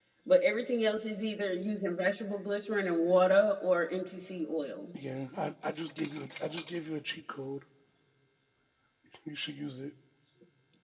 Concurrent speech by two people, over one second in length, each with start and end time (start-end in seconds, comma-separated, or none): none